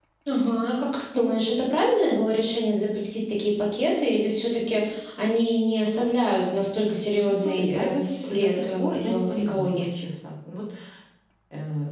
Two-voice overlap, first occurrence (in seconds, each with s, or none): 7.2 s